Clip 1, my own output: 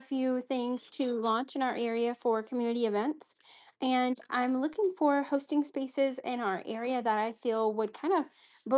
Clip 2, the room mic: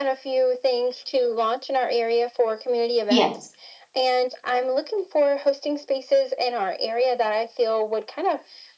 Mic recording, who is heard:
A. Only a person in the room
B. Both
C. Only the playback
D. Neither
B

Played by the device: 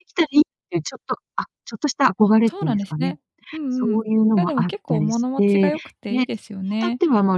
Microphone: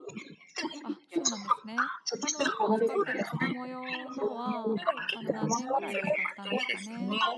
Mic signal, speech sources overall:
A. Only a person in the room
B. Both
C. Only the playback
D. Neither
B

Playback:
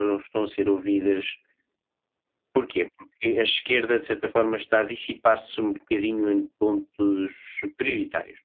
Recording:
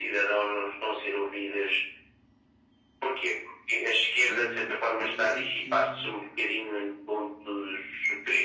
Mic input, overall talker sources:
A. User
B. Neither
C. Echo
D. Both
D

